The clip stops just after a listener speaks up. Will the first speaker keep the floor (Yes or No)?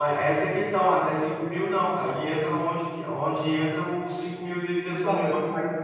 No